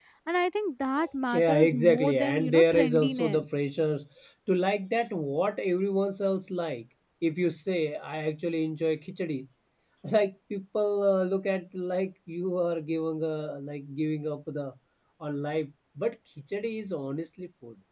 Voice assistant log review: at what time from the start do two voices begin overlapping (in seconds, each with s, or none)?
1.3 s